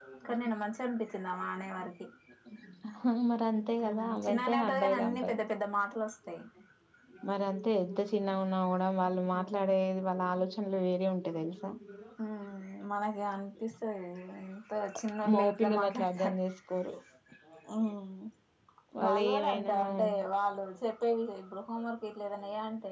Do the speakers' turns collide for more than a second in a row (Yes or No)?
Yes